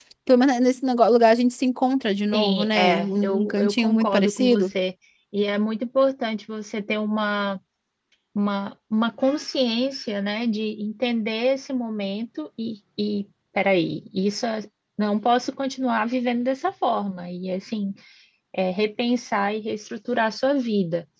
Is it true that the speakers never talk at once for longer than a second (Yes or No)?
No